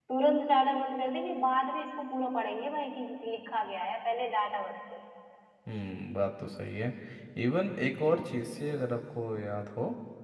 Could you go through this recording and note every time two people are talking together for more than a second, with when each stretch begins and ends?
none

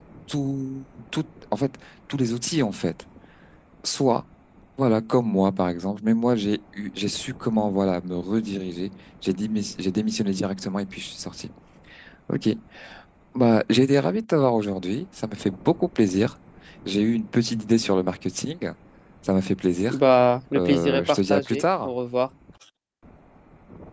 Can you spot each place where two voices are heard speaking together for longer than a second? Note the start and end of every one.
20.6-21.9

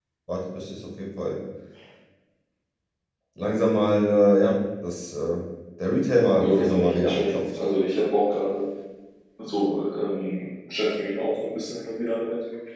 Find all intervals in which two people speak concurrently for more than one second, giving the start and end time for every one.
6.4-7.6

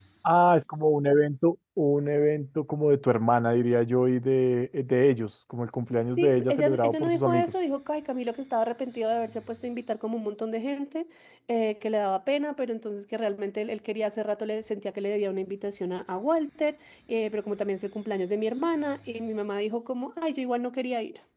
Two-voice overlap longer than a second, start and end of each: 6.2-7.5

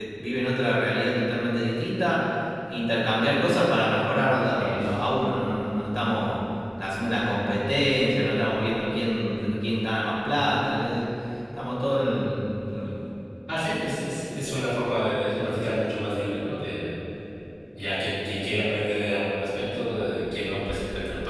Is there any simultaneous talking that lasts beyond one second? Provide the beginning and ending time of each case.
none

